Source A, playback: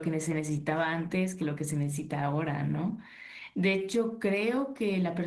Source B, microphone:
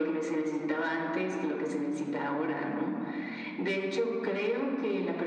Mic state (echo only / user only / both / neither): echo only